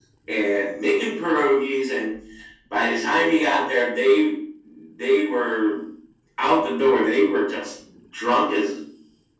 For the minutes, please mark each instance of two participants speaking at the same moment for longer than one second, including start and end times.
none

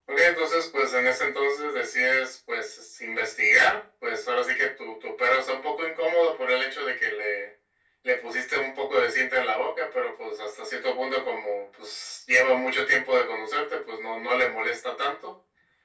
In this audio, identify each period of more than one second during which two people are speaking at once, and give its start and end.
none

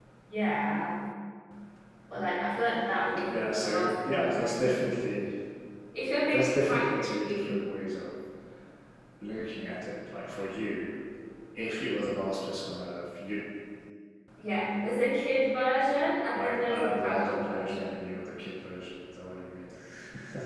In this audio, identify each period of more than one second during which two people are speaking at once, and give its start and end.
3.3-4.7, 6.3-7.6, 16.3-18.0

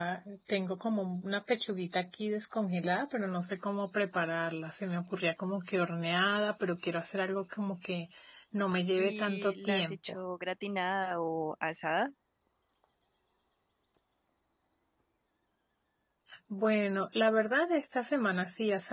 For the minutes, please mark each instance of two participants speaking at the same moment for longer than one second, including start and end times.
9.0-10.2

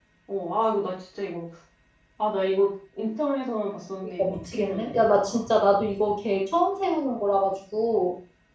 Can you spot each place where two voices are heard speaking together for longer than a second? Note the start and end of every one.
4.2-5.4

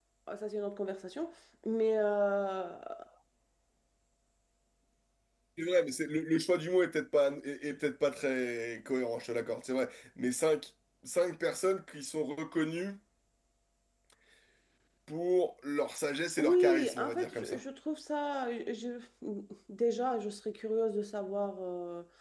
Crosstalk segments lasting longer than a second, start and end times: 16.4-17.6

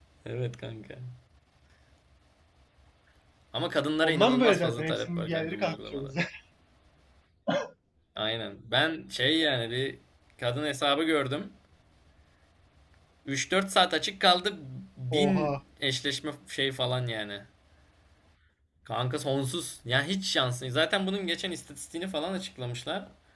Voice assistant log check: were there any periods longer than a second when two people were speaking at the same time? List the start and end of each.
4.0-6.1

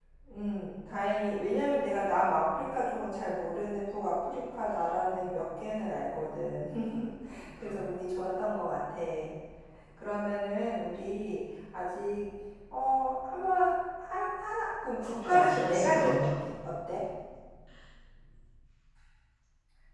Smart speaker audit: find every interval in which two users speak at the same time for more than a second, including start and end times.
15.0-16.4

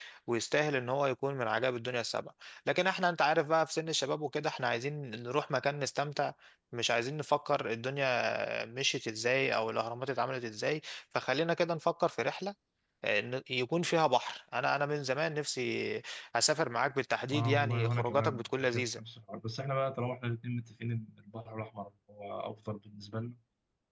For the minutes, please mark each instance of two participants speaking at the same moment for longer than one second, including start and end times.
17.3-19.0

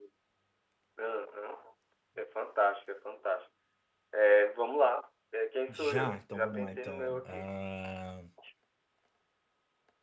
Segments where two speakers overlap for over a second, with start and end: 5.7-7.4

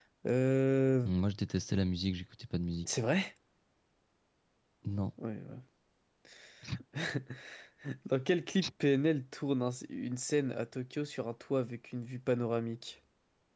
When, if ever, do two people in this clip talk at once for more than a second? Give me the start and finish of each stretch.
none

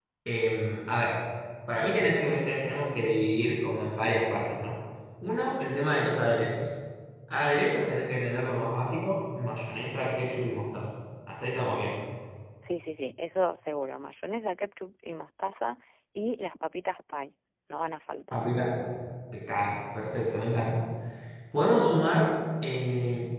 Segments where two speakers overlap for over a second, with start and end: none

